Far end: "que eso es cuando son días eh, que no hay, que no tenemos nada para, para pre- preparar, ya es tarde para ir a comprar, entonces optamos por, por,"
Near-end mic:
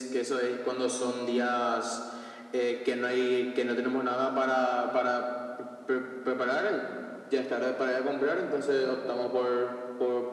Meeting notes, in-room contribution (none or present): none